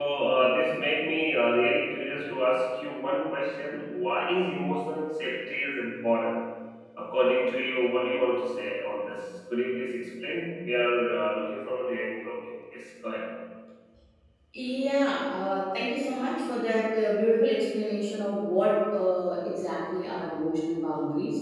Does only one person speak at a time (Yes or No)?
Yes